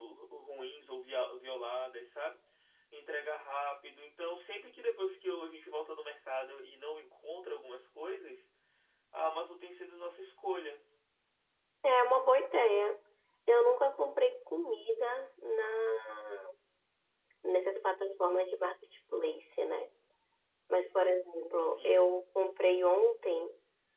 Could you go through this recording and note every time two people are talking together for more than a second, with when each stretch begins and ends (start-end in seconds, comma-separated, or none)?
none